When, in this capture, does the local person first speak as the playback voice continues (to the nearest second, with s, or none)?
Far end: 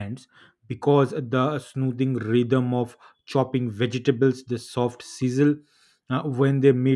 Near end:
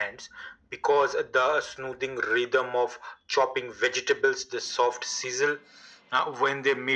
none